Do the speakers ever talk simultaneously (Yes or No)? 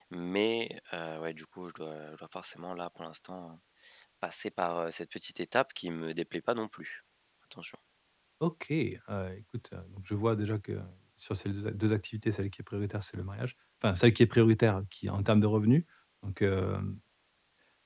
No